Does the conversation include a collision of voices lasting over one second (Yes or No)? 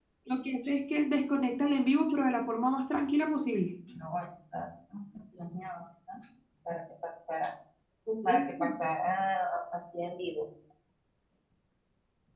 No